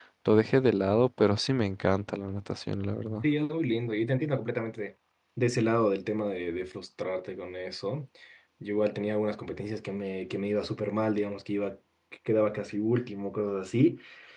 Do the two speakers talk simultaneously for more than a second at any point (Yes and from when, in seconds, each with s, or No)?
No